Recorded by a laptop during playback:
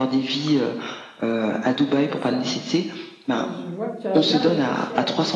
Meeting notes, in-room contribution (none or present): present